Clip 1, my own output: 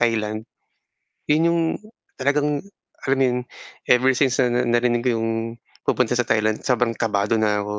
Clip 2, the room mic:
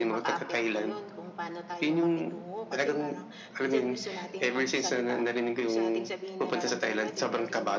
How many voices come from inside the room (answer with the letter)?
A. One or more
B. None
A